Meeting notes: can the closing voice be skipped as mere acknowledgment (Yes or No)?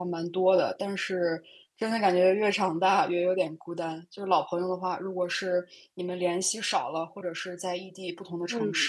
Yes